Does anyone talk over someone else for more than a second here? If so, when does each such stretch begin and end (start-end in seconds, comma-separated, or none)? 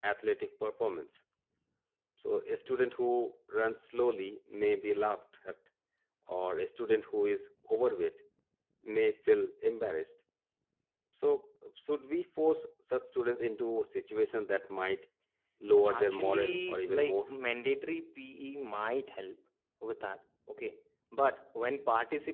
15.9-17.3